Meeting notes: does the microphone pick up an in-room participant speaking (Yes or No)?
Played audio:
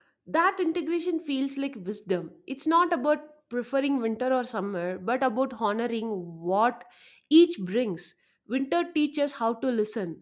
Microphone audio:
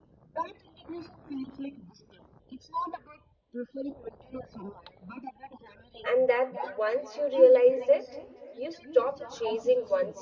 Yes